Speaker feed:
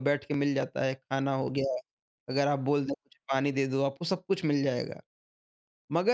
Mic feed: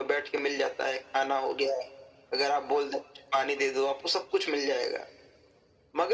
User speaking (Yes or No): No